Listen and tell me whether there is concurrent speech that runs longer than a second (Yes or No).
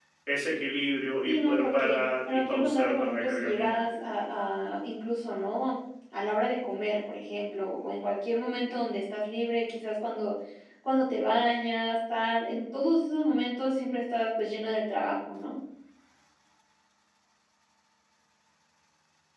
Yes